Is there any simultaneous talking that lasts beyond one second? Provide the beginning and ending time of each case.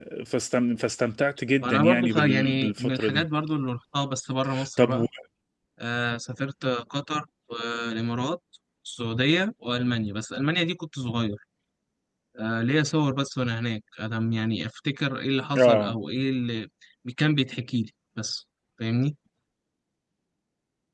1.6-3.2

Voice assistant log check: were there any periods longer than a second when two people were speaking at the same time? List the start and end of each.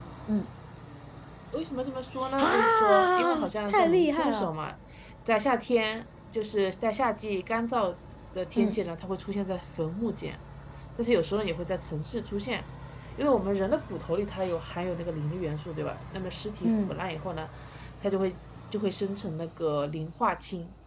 2.4-4.5

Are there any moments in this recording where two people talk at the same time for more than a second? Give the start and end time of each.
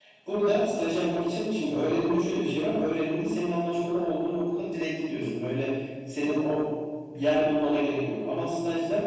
none

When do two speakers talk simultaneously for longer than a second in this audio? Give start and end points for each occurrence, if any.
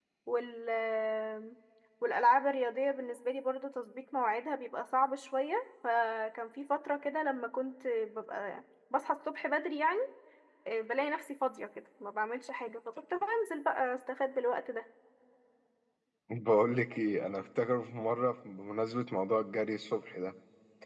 none

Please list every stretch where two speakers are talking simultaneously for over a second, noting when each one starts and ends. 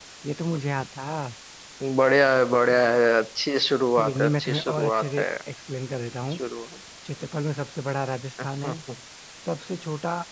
4.0-5.2

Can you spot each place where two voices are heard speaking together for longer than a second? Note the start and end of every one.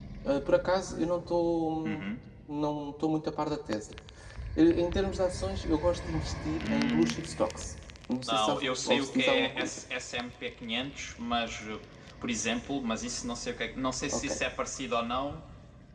8.3-9.8

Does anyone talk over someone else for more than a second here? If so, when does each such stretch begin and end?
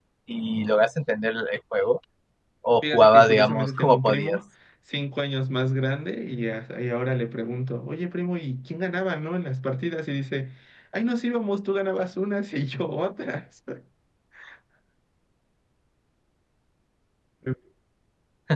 2.9-4.4

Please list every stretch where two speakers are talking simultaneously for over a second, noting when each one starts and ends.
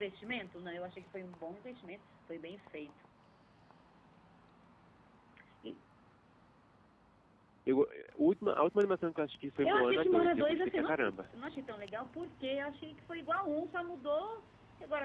9.6-11.2

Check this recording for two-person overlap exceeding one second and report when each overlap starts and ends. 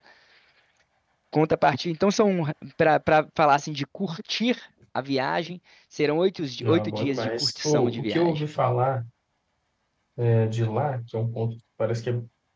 6.6-8.4

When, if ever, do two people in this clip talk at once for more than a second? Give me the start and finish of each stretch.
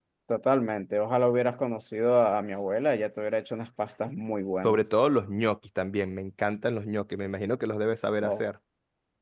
none

